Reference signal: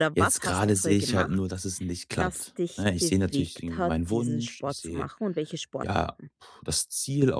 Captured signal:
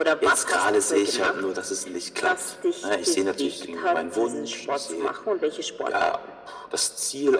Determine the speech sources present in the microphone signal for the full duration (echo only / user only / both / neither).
echo only